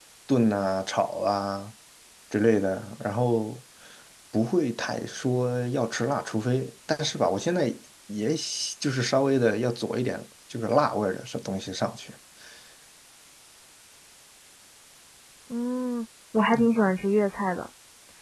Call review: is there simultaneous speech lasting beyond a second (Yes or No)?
No